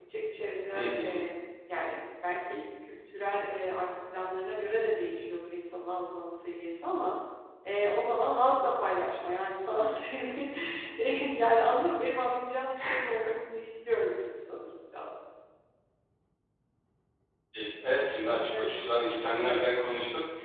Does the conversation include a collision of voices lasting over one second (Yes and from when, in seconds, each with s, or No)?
No